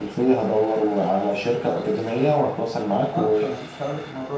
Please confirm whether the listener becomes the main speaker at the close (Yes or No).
Yes